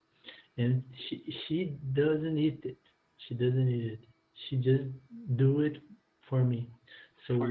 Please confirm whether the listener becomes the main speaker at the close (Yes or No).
No